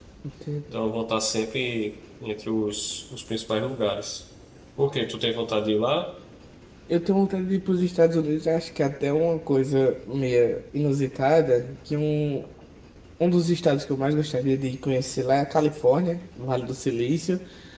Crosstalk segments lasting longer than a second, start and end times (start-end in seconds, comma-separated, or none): none